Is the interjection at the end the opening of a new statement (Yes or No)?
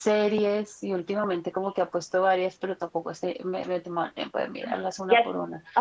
Yes